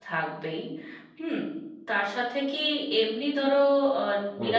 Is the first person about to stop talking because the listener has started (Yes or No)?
No